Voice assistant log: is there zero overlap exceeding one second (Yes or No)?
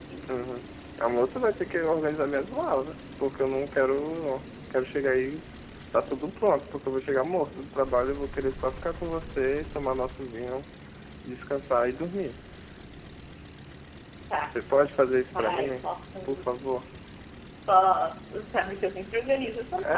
Yes